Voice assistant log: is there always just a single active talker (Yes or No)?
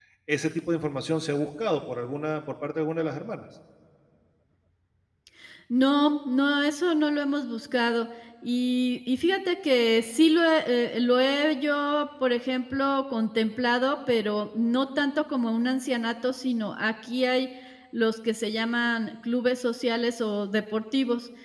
Yes